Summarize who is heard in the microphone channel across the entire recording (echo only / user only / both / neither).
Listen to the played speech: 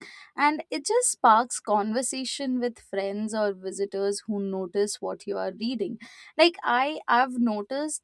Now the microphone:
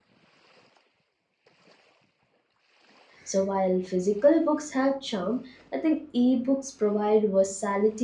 user only